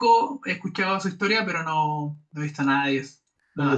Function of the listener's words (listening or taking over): taking over